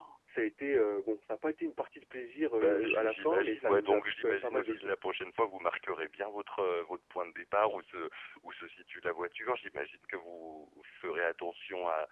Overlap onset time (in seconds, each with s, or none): 2.6 s